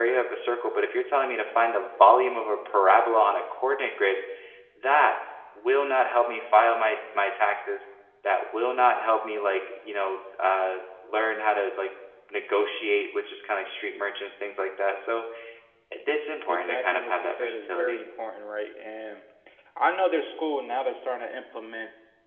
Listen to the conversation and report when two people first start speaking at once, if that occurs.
16.5 s

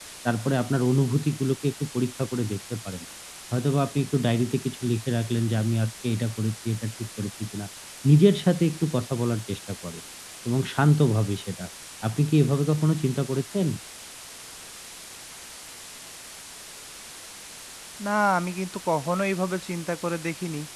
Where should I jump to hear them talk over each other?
none

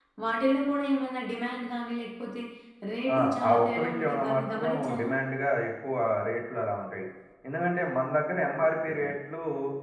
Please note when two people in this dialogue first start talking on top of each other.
3.2 s

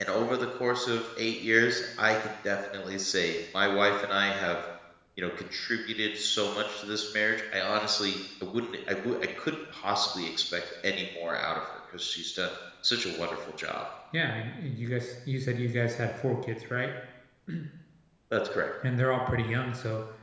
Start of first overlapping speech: none

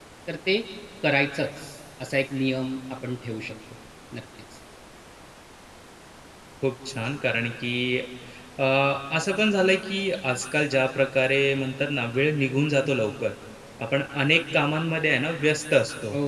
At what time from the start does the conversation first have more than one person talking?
none

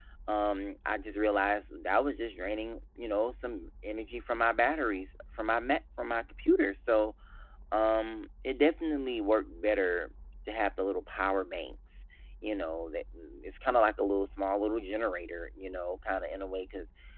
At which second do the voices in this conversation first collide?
none

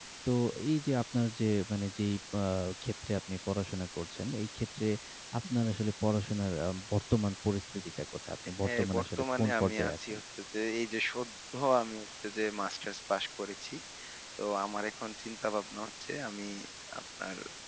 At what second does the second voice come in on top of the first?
8.6 s

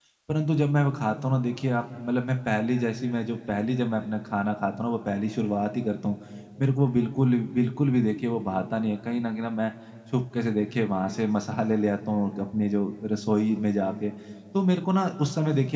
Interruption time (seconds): none

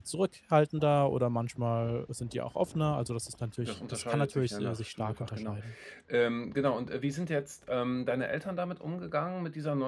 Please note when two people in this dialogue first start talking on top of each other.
3.6 s

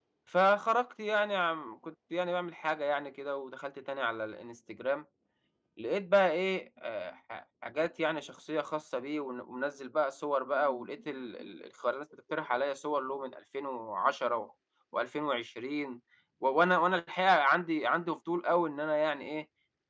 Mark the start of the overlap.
none

